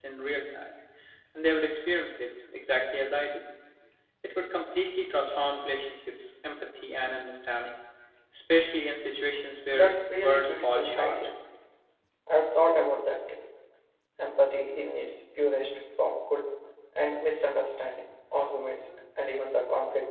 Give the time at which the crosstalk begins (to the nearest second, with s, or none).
10 s